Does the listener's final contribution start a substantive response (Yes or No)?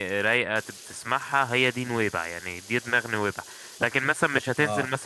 Yes